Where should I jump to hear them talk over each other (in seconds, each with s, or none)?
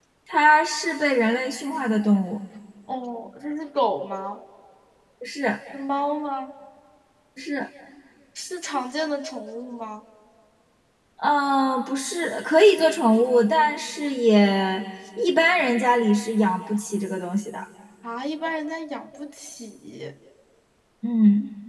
none